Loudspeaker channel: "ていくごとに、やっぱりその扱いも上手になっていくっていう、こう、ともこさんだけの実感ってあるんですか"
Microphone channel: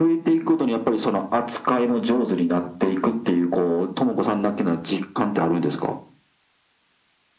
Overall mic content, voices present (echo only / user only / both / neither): echo only